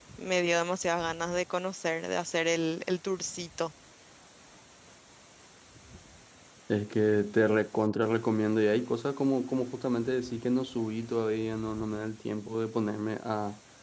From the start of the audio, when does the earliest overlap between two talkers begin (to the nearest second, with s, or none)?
none